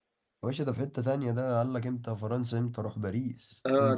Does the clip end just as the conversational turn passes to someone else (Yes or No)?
Yes